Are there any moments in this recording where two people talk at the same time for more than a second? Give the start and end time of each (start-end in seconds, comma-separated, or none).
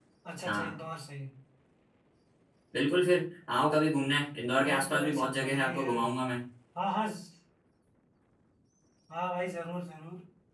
4.7-5.9